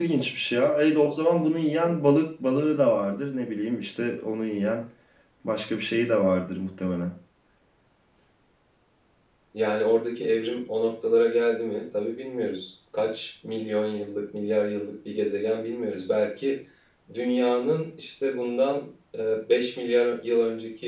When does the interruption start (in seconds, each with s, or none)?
none